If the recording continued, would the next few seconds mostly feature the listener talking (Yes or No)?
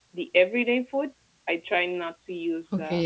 Yes